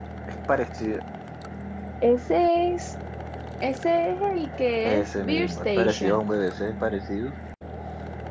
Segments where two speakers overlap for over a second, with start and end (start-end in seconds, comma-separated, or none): 4.8-6.2